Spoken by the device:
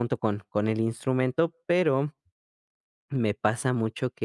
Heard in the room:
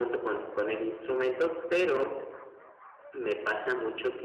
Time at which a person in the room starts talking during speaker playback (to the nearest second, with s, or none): none